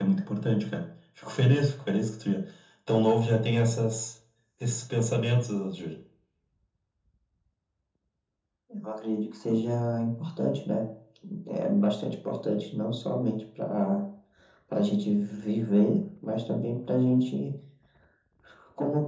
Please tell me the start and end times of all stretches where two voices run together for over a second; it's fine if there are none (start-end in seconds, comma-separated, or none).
none